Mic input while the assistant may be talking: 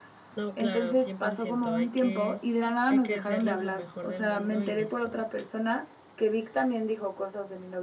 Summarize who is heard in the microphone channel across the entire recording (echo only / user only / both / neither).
both